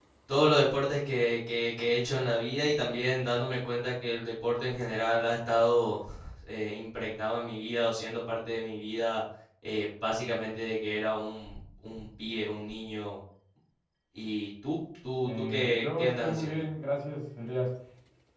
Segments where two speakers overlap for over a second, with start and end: 15.2-16.6

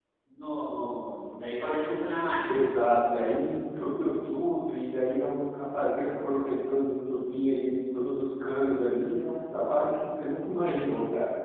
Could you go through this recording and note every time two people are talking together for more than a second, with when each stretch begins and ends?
none

